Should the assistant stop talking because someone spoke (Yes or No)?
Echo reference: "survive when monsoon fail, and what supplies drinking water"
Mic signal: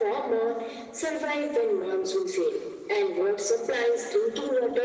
No